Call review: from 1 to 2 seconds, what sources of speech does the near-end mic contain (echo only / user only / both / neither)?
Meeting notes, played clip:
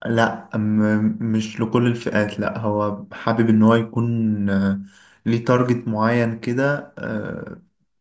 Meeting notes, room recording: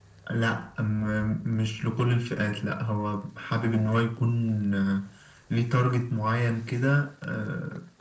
echo only